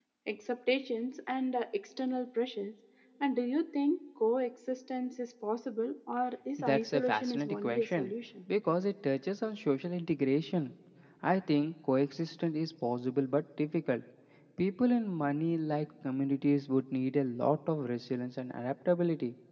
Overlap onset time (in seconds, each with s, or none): 6.6 s